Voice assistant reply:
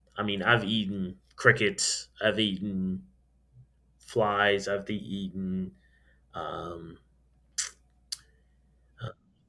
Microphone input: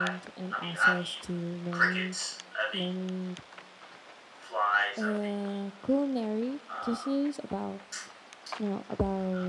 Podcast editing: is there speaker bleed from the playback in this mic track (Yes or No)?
Yes